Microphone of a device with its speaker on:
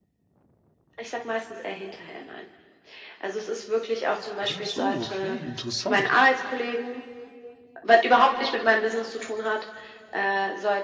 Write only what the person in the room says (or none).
Achso, okay, interessant.